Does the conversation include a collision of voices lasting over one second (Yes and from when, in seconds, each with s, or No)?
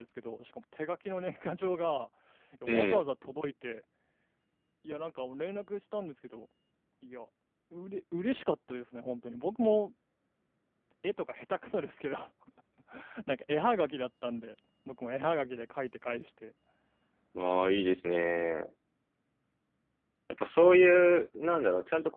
No